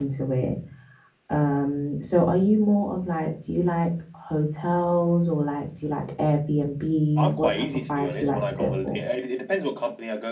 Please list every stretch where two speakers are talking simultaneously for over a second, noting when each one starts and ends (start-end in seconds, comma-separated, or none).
7.2-9.0